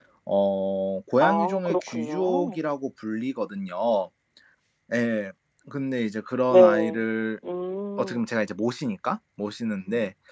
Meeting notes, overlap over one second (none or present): present